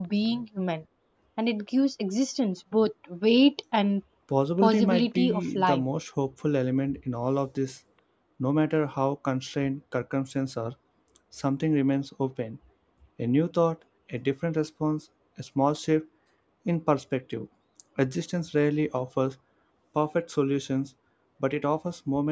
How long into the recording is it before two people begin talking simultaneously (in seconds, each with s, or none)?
4.6 s